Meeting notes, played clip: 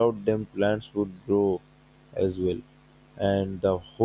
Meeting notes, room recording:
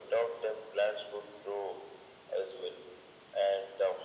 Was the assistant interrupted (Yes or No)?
No